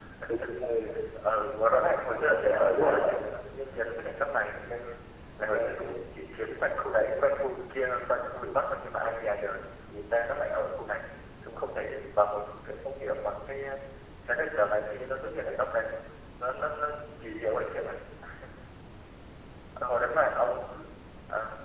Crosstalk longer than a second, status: present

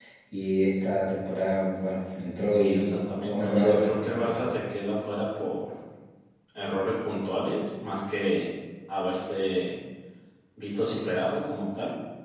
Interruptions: present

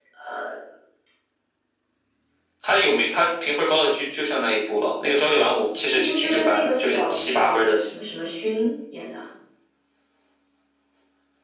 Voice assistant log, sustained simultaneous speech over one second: present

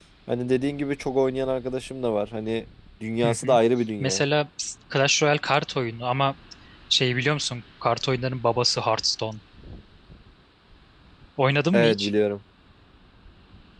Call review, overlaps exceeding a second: none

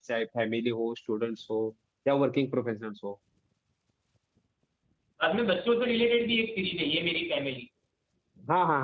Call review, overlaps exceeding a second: none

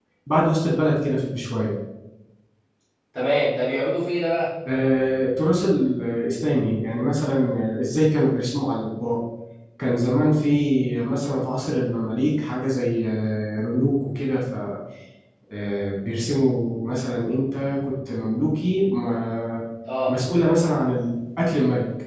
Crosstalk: none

